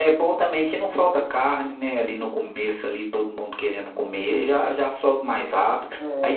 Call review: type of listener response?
listening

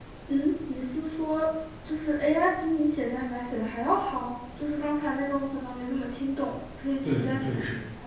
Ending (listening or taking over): taking over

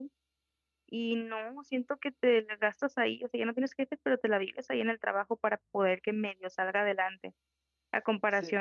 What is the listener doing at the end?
listening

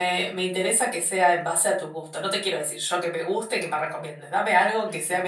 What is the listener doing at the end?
listening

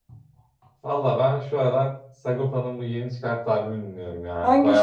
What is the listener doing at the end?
taking over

